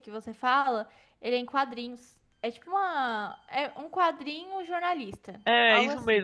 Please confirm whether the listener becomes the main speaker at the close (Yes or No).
Yes